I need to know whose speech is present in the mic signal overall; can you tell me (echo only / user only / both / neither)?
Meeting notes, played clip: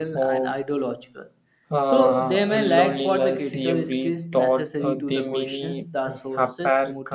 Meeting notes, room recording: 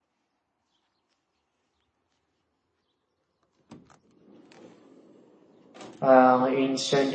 user only